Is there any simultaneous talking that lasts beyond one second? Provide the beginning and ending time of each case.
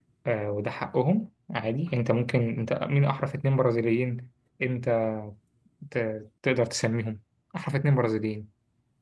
none

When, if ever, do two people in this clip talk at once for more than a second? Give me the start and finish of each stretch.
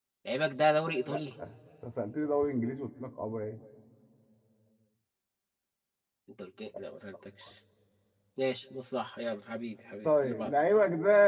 none

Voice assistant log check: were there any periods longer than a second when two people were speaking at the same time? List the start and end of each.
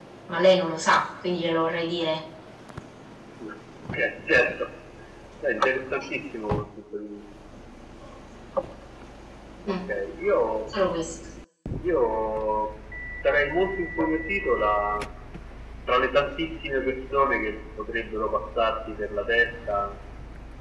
none

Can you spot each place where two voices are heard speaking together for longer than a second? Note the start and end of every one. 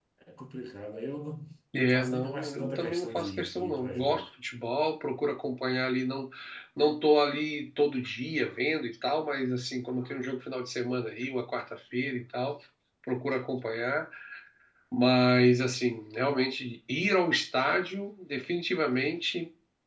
1.8-4.2

